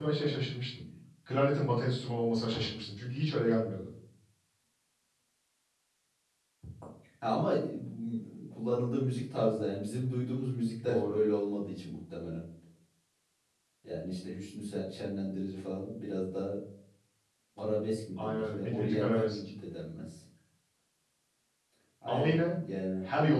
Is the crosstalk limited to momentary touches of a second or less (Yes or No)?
No